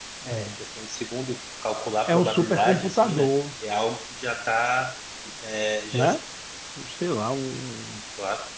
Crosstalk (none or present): present